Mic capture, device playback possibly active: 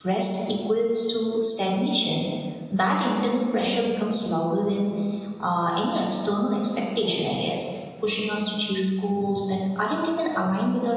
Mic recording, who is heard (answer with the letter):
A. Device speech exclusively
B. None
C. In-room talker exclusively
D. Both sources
C